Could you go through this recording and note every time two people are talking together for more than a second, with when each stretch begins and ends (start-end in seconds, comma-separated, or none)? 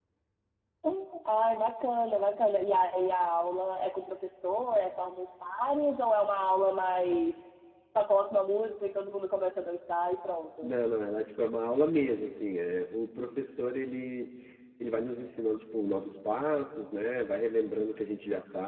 none